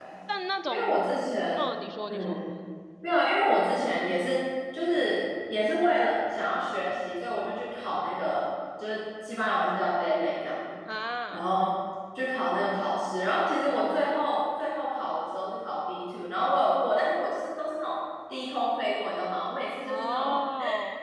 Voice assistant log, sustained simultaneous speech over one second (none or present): none